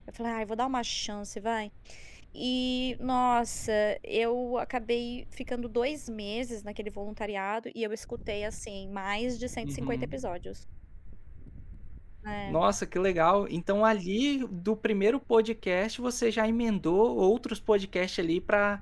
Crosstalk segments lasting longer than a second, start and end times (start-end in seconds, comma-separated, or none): none